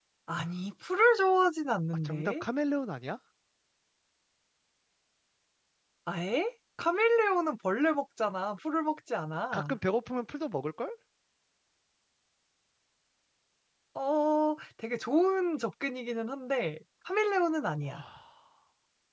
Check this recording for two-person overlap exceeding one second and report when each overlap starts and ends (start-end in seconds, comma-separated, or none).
none